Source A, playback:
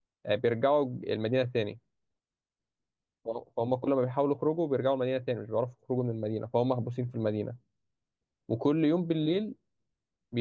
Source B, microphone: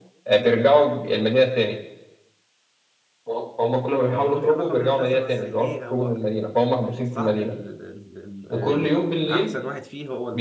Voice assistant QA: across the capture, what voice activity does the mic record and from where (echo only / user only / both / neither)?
both